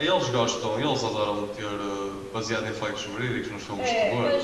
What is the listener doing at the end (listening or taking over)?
taking over